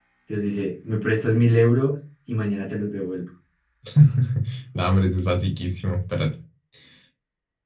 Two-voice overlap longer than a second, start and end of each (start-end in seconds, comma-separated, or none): none